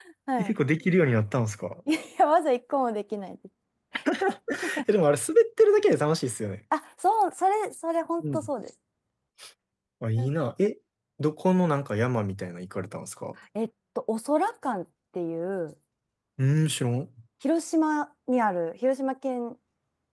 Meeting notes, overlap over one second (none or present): none